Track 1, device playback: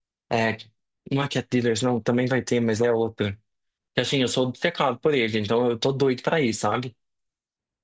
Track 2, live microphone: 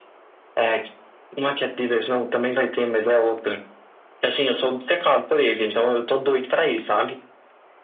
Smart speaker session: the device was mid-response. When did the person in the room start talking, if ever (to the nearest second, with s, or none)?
none